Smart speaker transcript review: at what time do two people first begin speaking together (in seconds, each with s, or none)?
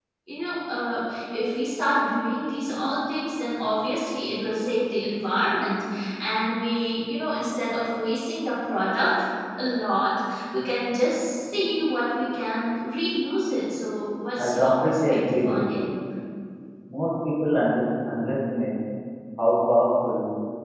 14.4 s